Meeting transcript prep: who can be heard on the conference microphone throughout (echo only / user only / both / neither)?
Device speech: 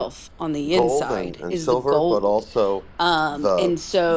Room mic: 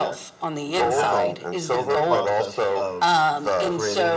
both